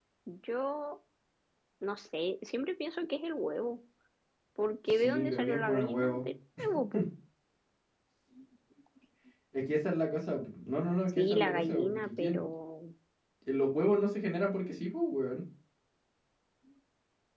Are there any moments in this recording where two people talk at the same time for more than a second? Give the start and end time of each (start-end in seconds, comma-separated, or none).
4.9-6.3, 11.2-12.4